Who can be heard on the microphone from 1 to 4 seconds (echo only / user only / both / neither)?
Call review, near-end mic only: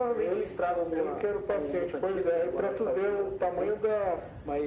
echo only